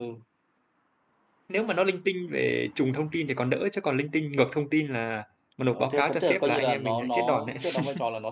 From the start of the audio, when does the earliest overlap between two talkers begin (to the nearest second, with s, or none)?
6 s